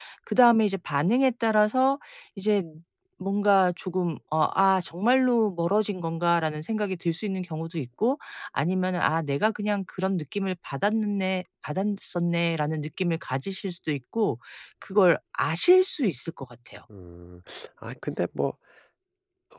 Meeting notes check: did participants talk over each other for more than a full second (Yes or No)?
No